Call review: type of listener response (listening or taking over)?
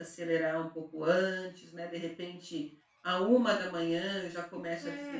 taking over